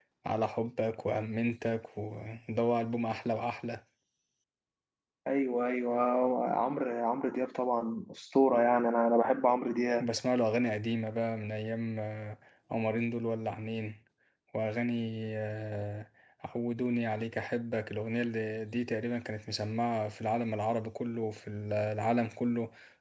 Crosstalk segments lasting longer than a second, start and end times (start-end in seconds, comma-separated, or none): none